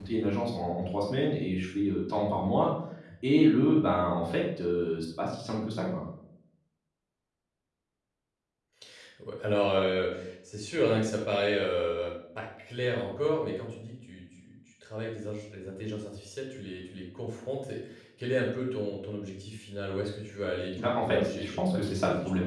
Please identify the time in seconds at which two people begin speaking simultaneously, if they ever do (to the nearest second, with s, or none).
21 s